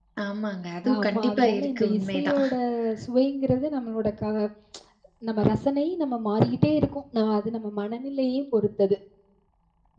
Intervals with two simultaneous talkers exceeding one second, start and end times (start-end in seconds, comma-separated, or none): 0.9-2.4